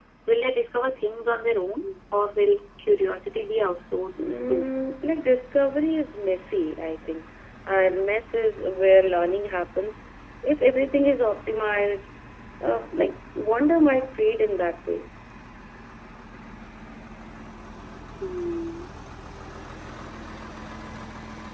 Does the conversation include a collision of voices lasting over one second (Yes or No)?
No